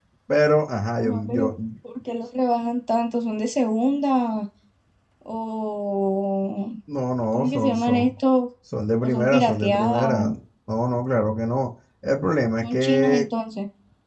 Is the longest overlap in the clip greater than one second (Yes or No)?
Yes